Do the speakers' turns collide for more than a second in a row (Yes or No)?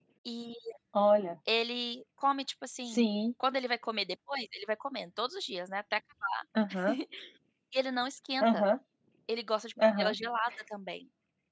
No